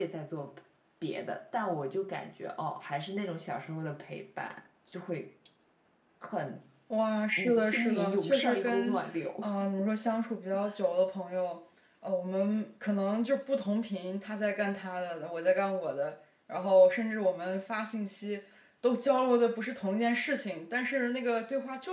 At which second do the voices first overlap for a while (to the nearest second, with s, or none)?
8 s